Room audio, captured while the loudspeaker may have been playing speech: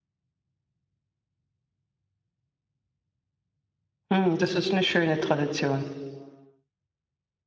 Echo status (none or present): none